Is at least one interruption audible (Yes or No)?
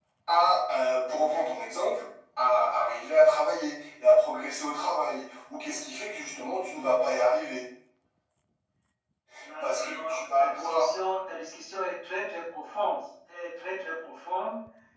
Yes